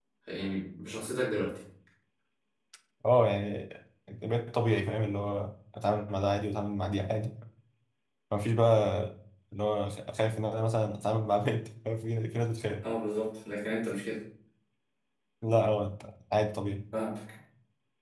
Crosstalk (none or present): none